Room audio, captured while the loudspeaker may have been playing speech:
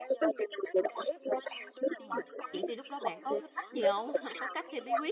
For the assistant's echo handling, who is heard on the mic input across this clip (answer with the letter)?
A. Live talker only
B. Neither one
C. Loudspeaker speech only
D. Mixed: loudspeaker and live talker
D